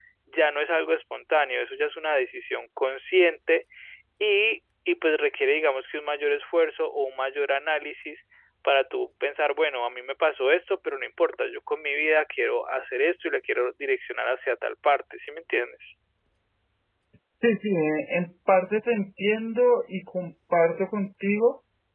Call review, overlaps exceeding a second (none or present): none